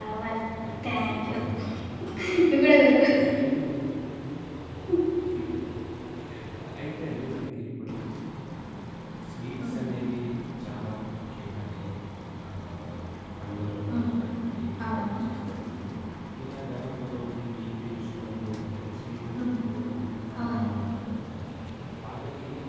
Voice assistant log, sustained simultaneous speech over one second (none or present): none